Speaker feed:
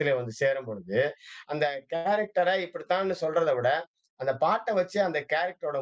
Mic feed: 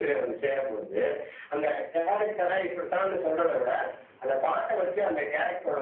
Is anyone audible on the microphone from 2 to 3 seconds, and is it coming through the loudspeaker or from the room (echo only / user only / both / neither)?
echo only